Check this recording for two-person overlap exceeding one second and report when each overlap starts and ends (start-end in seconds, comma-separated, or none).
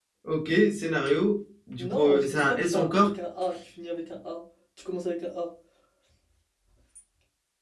1.8-3.1